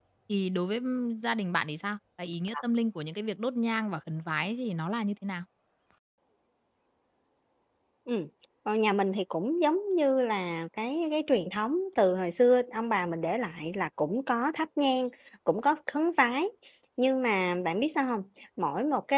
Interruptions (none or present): none